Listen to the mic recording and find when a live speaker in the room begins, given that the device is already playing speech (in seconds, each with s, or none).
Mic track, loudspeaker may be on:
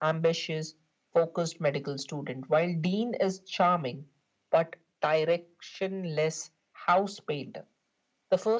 none